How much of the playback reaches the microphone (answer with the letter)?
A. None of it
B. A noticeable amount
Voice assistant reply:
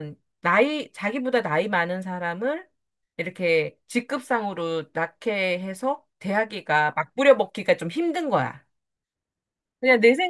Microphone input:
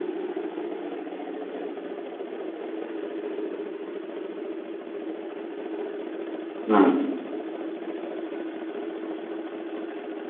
A